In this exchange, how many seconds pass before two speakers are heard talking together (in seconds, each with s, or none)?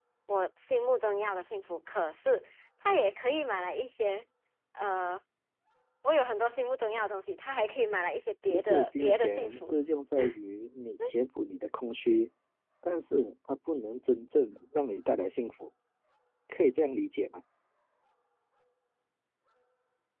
8.4 s